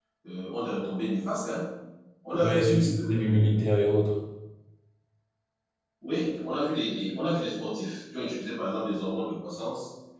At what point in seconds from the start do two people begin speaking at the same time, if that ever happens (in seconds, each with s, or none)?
2.4 s